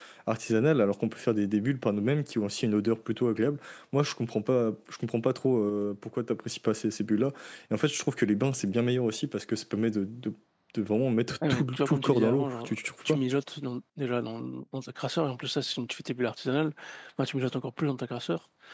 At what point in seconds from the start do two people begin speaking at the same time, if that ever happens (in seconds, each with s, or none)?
11.5 s